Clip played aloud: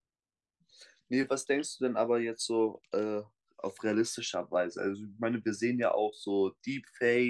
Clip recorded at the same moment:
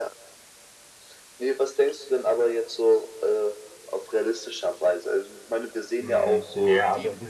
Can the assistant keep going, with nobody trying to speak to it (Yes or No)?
No